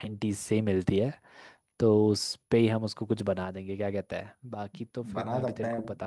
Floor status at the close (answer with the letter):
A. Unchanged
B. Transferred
B